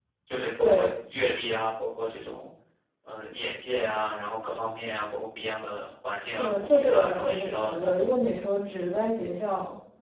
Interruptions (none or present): present